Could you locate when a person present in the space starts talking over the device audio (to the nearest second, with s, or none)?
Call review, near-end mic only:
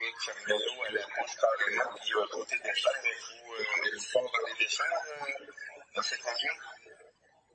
none